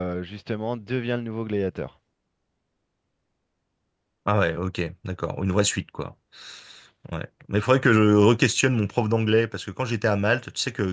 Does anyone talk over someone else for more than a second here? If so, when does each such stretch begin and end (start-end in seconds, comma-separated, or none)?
none